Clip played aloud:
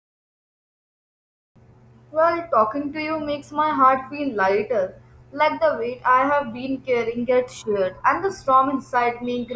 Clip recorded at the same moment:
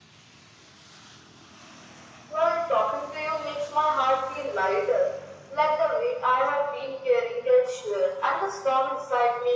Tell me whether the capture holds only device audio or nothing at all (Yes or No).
Yes